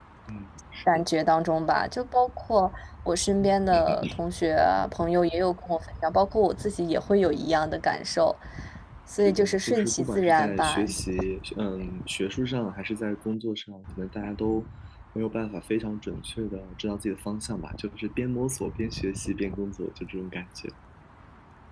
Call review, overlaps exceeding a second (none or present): present